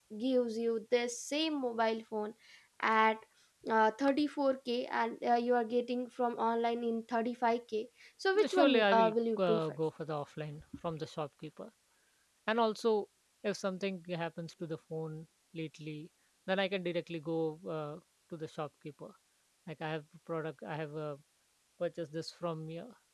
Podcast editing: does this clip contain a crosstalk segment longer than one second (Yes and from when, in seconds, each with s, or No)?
Yes, from 8.3 s